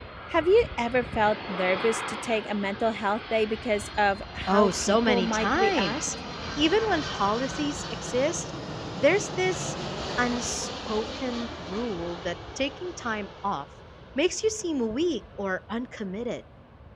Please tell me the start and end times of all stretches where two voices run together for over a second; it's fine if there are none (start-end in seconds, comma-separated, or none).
4.5-6.0